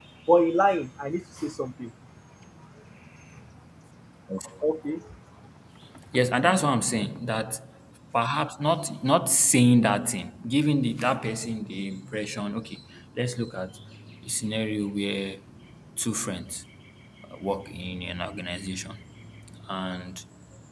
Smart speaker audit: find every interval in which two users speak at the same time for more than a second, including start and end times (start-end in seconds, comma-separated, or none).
none